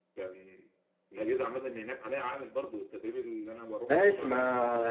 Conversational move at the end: taking over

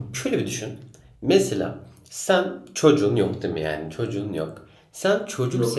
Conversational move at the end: listening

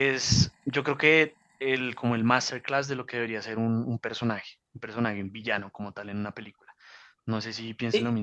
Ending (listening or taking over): taking over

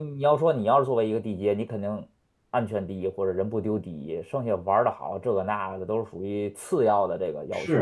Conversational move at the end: taking over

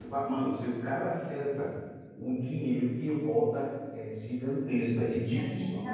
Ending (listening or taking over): taking over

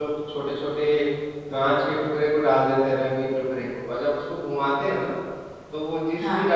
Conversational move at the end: listening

